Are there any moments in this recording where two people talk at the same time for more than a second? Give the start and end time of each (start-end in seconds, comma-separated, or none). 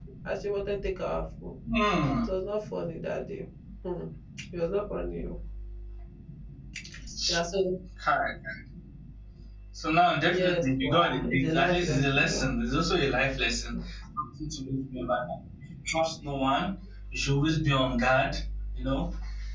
10.3-12.5